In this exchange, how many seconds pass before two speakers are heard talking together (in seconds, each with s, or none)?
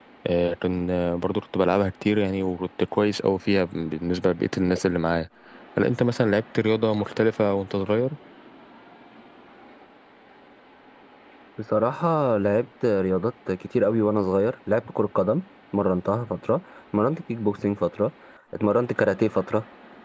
none